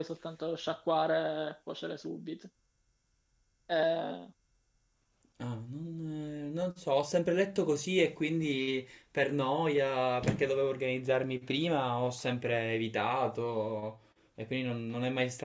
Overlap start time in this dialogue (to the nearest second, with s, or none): none